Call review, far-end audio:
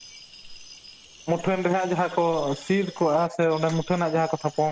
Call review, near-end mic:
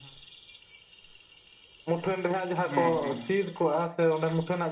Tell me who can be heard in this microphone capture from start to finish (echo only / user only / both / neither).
both